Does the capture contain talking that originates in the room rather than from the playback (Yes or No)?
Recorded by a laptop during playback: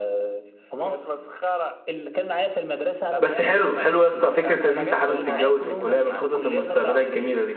Yes